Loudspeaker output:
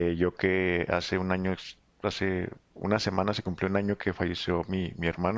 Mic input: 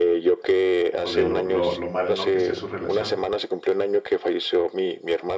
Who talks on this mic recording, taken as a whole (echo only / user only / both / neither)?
both